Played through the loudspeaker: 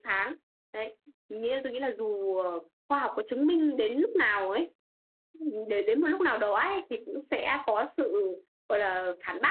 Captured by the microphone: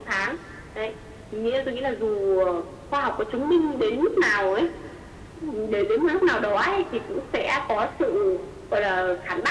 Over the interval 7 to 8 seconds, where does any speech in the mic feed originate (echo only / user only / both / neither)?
echo only